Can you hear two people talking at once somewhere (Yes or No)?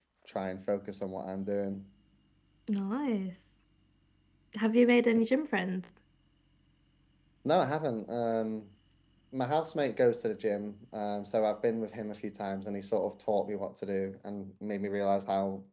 No